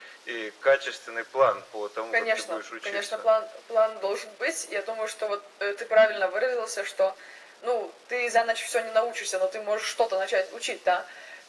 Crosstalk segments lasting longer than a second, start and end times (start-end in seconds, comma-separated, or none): 2.1-3.3